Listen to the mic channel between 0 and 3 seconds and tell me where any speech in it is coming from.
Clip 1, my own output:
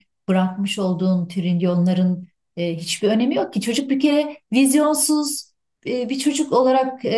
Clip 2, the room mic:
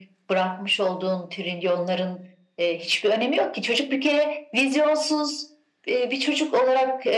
echo only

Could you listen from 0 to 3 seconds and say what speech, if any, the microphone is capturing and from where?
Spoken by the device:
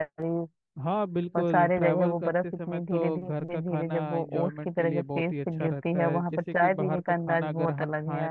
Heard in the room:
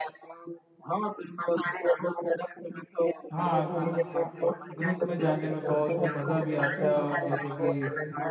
echo only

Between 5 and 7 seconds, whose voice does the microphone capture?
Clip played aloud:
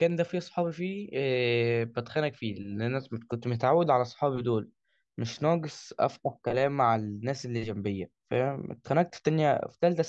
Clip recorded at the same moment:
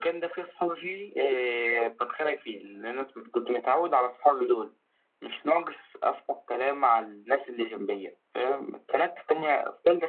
echo only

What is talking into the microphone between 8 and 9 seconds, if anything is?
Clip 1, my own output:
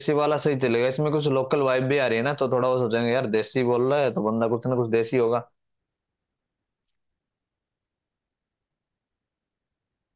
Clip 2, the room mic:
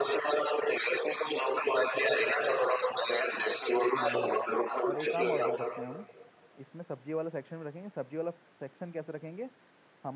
user only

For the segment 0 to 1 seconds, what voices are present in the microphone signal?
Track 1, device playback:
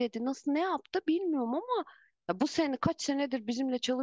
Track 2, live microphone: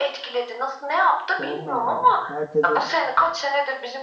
echo only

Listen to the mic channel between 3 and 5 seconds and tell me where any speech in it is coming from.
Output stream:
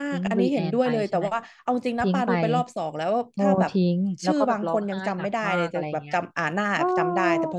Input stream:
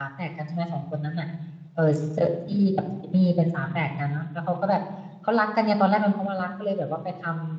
user only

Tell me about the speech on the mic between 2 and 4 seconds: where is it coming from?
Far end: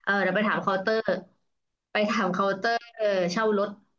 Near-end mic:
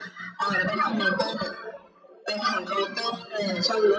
echo only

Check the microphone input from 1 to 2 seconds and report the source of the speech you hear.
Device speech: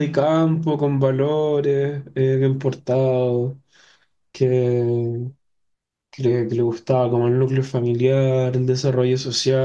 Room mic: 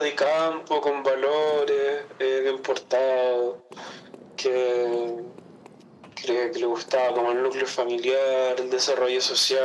echo only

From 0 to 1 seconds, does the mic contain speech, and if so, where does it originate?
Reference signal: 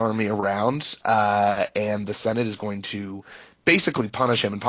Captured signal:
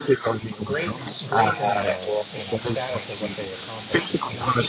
both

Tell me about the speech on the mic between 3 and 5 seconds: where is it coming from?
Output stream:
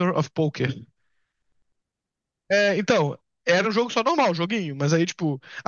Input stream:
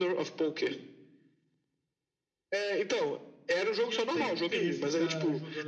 both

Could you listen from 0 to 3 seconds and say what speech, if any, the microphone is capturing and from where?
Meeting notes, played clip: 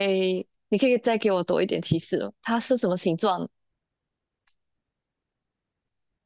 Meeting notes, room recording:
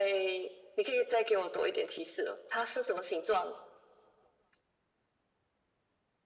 echo only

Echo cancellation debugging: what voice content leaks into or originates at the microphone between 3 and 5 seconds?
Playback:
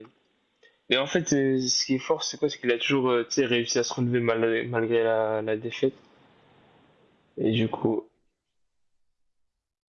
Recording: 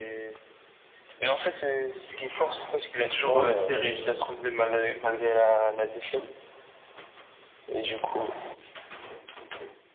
both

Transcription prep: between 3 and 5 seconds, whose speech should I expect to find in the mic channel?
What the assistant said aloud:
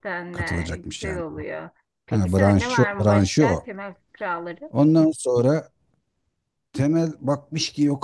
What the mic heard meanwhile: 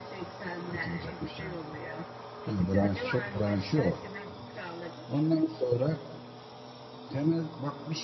echo only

